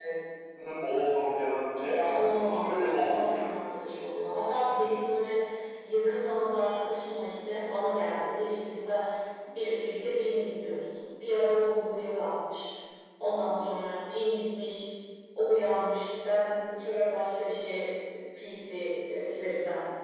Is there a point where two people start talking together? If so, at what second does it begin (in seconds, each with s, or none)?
1.8 s